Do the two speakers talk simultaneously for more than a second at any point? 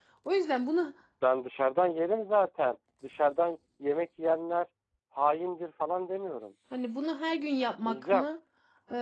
No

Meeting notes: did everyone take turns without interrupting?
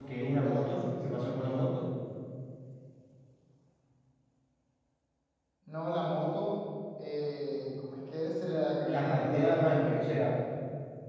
No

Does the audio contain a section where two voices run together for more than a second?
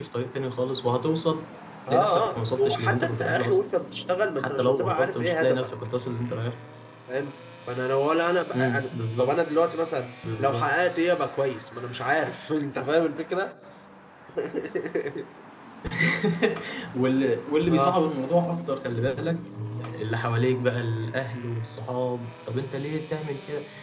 Yes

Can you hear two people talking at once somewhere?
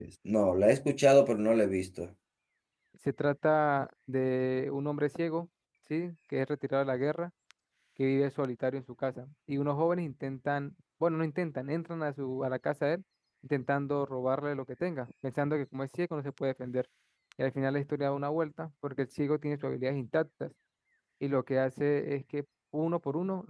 No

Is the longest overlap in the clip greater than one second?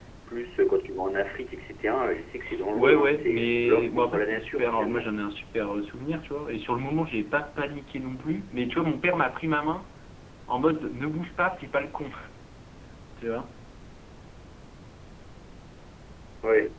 Yes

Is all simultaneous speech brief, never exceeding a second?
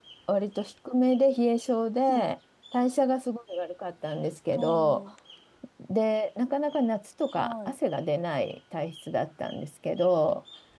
Yes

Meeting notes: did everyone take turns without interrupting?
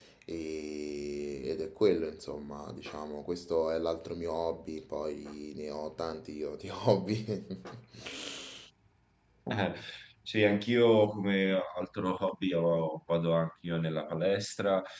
Yes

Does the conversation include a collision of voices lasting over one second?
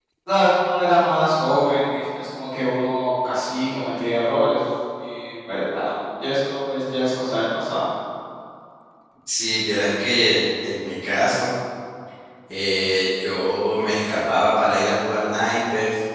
No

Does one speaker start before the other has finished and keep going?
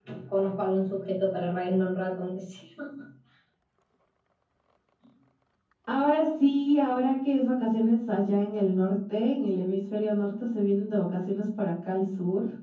No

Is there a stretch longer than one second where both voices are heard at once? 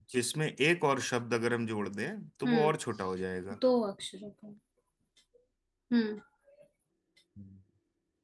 No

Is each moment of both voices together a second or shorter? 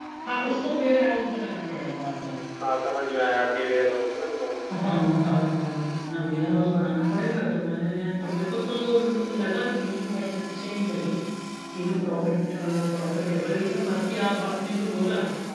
Yes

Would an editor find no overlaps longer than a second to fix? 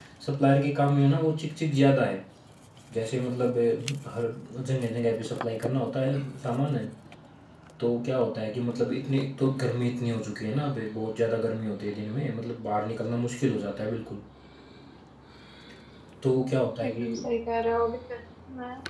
Yes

